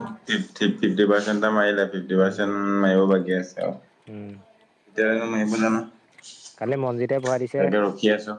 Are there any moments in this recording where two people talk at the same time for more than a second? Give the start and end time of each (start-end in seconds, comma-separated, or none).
none